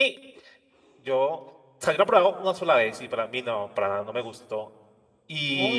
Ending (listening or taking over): taking over